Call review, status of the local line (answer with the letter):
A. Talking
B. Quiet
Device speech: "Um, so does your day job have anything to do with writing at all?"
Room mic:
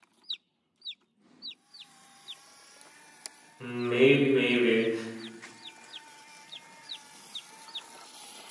A